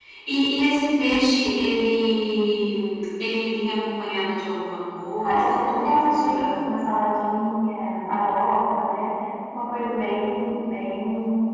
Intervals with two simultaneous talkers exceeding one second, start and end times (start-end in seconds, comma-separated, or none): 5.2-6.7